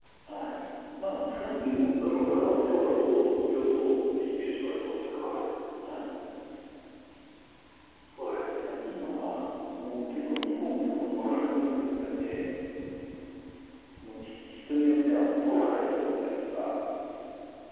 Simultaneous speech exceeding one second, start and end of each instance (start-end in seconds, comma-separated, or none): 1.6-2.9